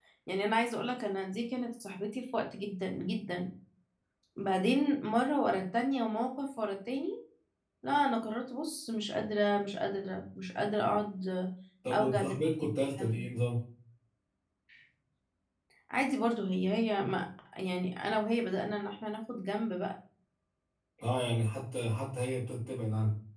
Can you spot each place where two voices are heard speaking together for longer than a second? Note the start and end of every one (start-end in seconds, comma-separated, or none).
11.9-13.2